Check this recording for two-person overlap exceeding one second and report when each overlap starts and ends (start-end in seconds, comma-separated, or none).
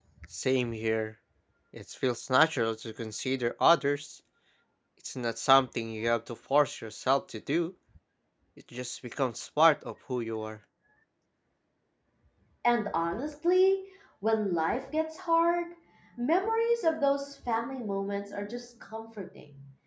none